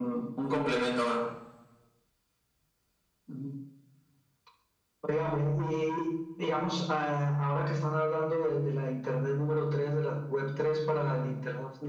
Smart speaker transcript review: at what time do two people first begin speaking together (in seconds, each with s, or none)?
none